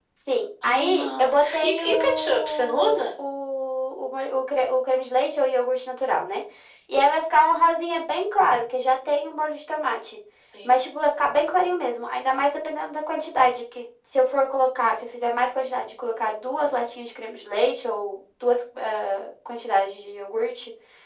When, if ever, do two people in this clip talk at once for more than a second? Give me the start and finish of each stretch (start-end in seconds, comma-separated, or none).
0.6-3.0